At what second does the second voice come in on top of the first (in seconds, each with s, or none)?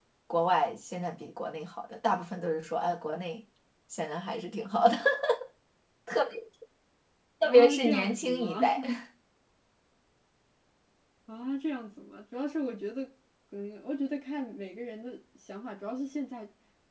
7.5 s